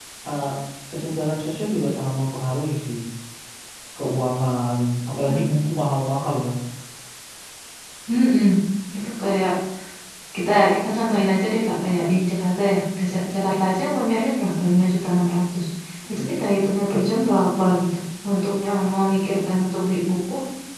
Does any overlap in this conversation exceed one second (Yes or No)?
No